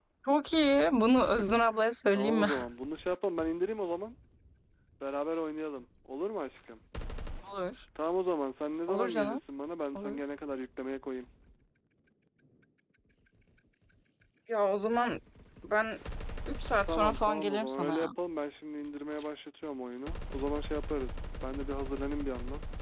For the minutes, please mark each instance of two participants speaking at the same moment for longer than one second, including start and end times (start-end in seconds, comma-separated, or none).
16.8-18.1